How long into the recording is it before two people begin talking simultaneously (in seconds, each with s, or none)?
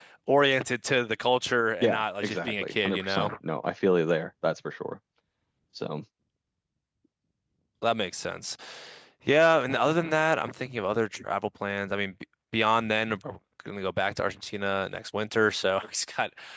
1.8 s